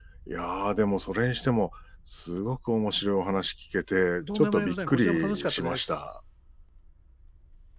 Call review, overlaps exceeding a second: present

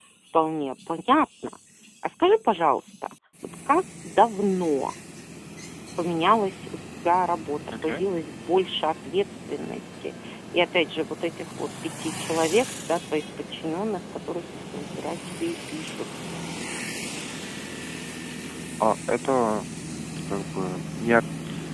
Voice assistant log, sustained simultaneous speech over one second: none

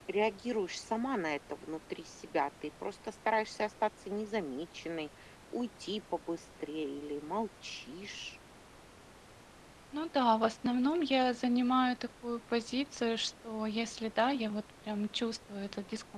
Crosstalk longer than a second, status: none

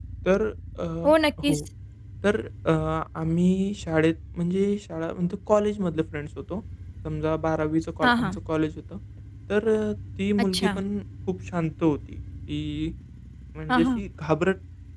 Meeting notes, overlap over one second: none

